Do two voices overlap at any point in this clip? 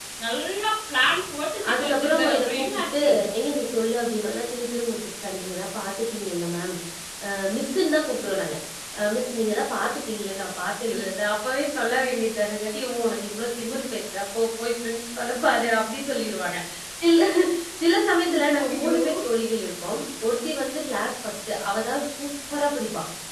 Yes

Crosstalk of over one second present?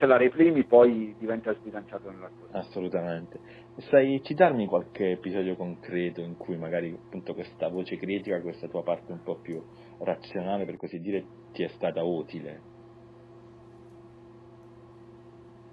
No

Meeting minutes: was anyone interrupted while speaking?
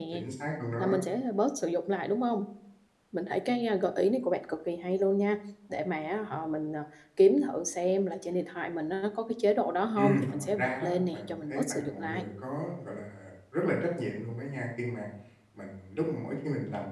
Yes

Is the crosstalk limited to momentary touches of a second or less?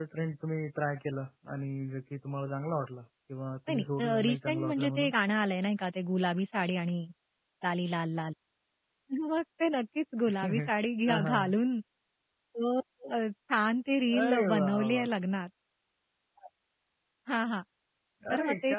No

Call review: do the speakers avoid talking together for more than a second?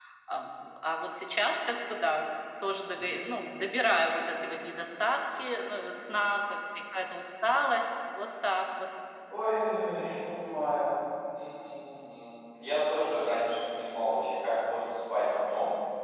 Yes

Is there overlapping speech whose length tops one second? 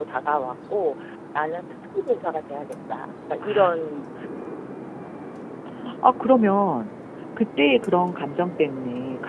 No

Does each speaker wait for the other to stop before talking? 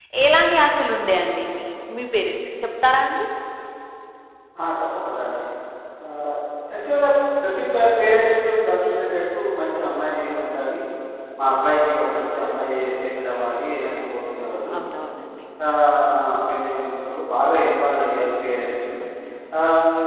Yes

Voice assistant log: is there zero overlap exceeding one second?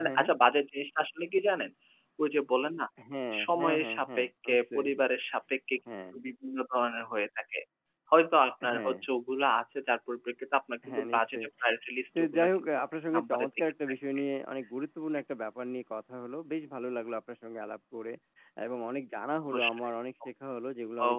No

